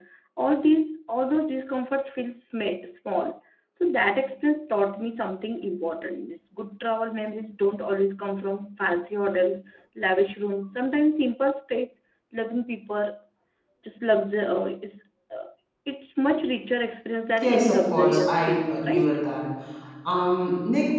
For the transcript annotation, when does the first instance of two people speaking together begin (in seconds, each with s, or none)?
17.4 s